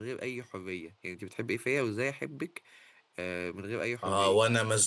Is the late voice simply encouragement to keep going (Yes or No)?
No